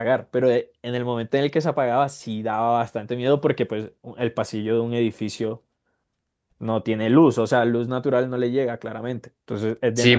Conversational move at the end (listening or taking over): taking over